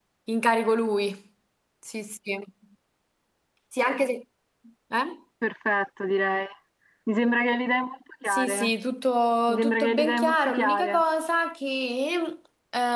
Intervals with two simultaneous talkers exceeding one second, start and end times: 9.5-11.0

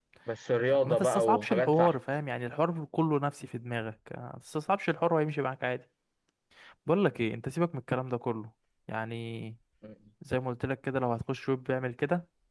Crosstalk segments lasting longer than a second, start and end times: 0.7-2.0

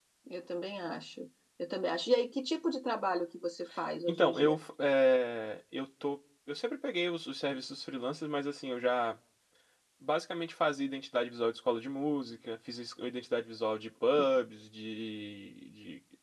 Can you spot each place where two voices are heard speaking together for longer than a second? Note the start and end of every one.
none

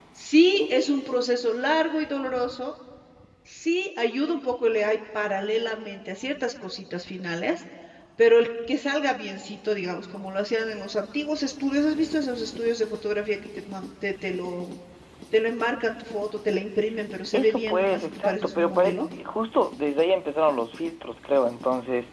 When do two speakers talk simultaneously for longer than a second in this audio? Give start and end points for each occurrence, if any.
17.3-19.0

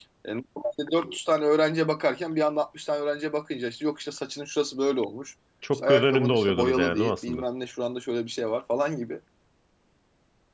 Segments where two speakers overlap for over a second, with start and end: 5.7-7.4

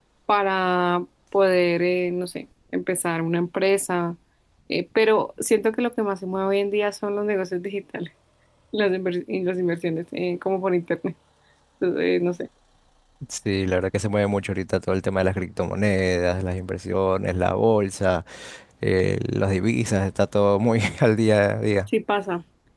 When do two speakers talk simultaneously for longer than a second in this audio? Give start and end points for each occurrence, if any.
none

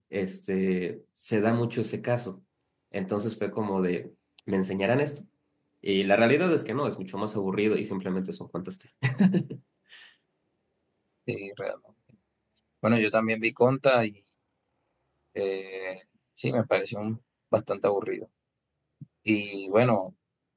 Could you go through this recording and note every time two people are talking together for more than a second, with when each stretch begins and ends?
none

